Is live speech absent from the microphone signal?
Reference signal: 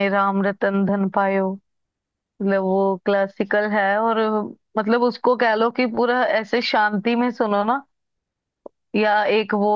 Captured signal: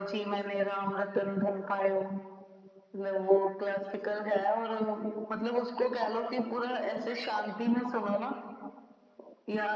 Yes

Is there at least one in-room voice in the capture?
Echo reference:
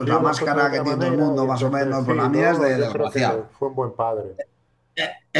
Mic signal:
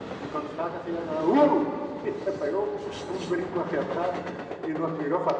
Yes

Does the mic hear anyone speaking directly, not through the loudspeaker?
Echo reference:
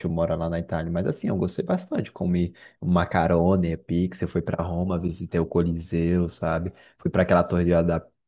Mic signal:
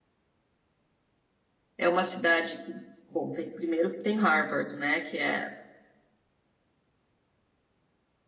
Yes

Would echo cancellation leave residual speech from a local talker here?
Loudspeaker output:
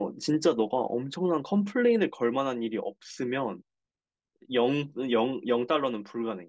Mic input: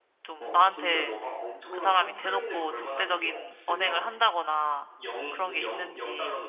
Yes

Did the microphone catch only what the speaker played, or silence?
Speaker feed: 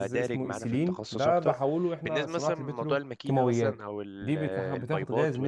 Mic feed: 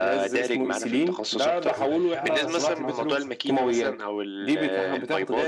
No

